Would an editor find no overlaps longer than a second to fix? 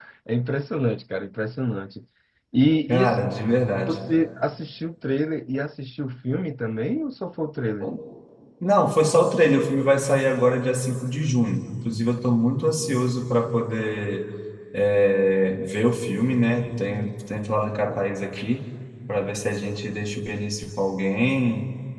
Yes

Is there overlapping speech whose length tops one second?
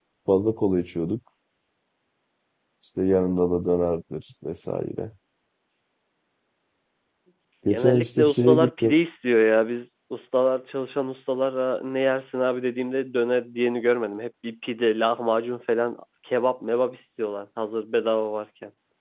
Yes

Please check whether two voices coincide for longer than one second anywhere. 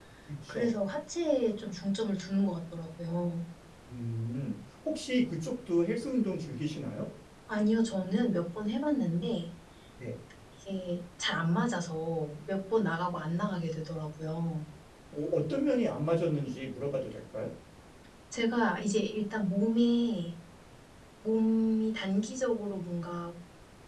No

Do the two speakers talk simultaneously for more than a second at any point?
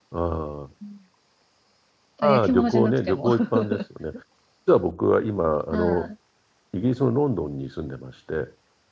Yes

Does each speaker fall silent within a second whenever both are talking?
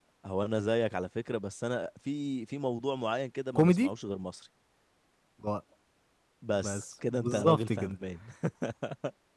No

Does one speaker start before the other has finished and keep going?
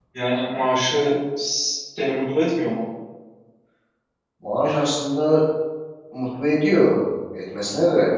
No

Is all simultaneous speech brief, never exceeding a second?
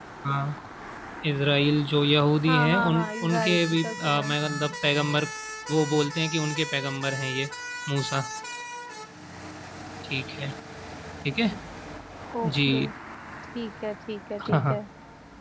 No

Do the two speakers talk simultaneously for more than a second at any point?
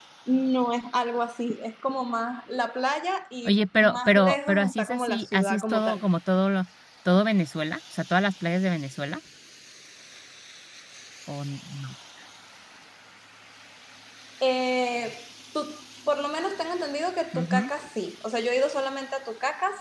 Yes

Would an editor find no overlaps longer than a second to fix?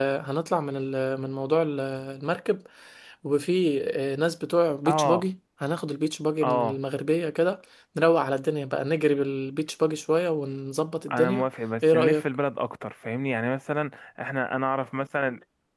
Yes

